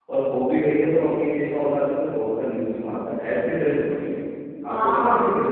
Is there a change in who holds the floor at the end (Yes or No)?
Yes